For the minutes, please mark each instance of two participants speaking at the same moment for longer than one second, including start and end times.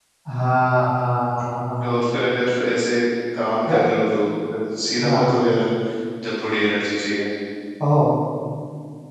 none

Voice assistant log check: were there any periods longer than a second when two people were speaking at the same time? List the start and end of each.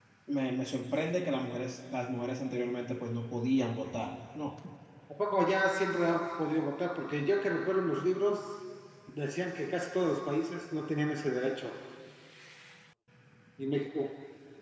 none

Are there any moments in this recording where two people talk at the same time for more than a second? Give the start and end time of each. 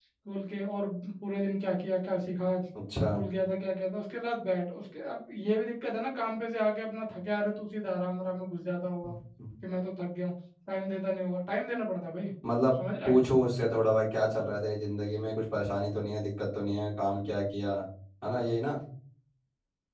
none

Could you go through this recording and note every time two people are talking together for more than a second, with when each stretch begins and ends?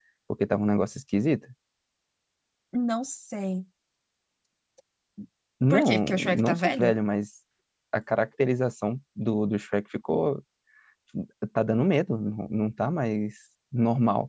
5.7-6.9

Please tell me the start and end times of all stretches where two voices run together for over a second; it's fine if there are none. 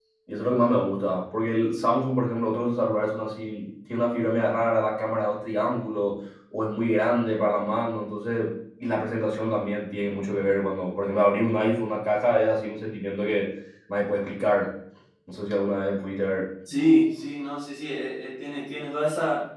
none

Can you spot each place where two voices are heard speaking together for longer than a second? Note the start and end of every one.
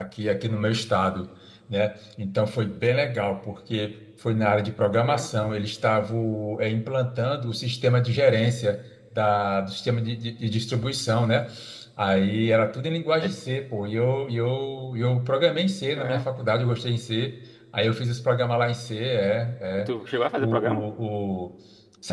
none

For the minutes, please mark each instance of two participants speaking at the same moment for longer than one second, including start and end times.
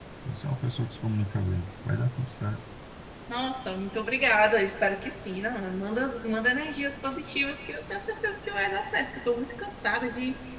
none

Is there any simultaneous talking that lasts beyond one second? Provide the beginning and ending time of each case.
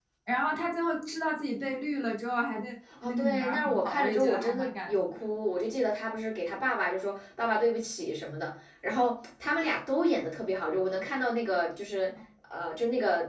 3.0-5.2

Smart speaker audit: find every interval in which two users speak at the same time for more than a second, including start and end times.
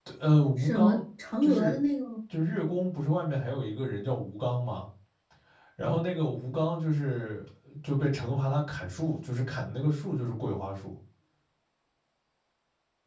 none

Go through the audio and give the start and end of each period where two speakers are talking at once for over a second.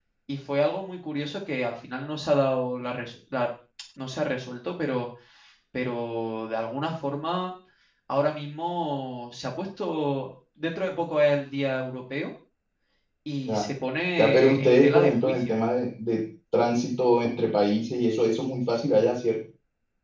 14.2-15.6

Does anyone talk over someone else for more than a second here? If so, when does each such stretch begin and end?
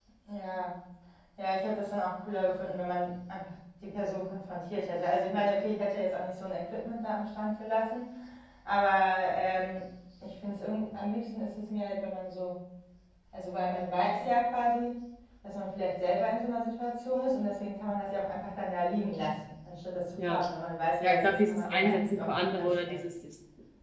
21.0-23.0

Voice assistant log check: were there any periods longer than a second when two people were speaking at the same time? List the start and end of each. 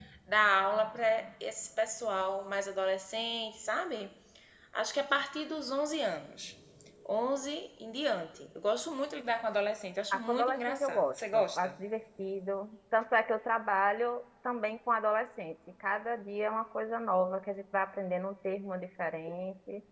10.1-11.7

